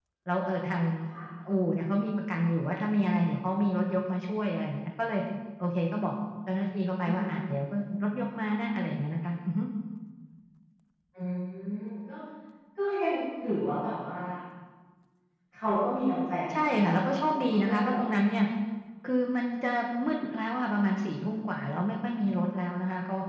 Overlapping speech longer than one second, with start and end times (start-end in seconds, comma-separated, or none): 16.6-18.0